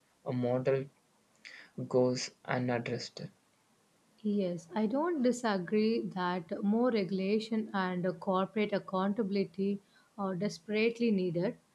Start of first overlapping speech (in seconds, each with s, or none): none